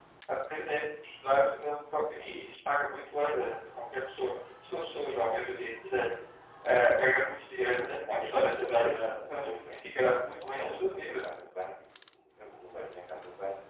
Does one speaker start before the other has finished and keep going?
Yes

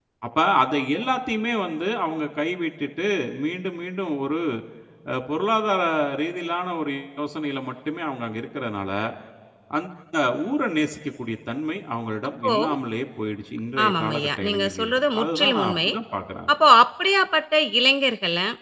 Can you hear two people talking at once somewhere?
Yes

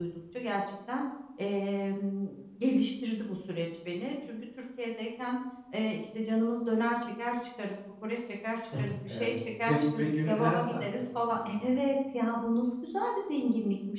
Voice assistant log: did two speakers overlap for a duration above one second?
Yes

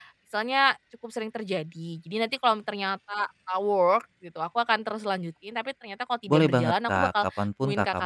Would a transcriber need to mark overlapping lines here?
Yes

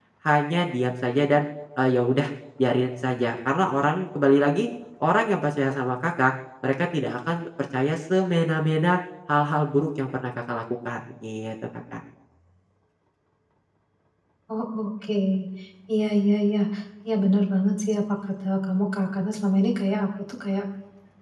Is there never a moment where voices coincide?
Yes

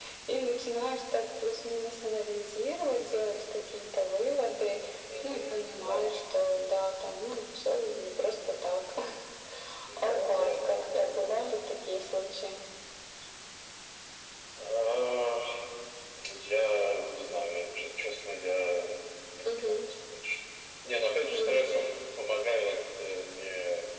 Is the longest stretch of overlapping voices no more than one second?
No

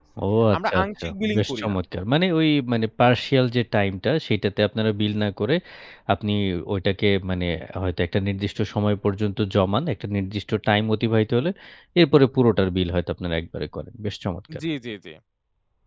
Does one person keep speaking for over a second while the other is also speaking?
Yes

